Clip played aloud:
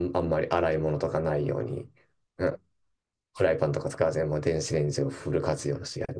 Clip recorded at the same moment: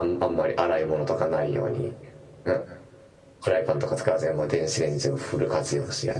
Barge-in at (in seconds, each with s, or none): none